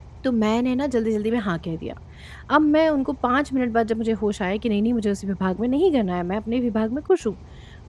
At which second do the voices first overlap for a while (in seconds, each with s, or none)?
none